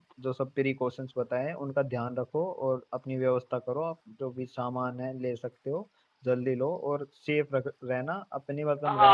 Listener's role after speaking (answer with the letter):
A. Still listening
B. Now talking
B